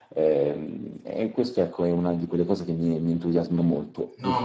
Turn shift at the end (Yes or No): Yes